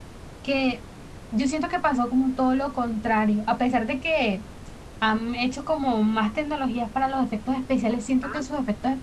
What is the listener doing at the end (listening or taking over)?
listening